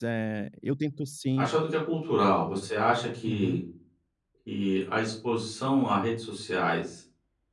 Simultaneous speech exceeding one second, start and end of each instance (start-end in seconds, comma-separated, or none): none